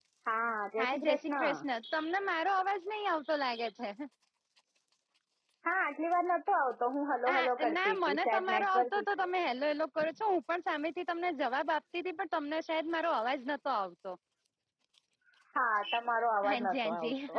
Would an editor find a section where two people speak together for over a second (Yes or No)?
Yes